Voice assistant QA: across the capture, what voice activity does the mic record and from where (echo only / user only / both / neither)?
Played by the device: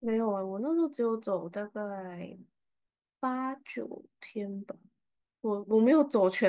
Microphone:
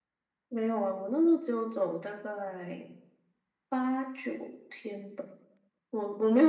echo only